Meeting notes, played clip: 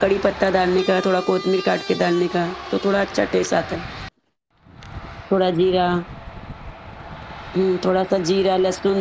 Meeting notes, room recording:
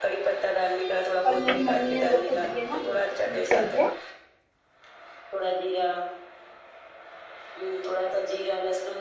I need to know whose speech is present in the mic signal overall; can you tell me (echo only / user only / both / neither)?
both